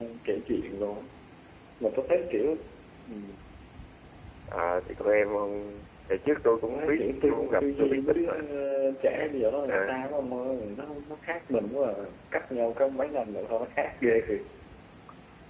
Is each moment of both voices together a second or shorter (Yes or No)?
No